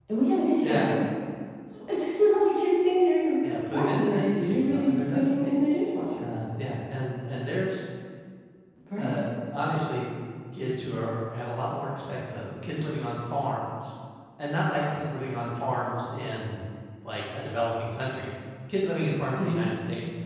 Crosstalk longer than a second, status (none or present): present